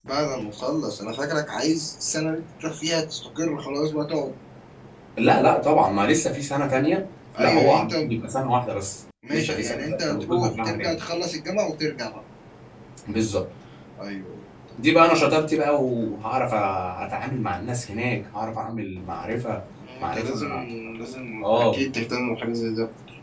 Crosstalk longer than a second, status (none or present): present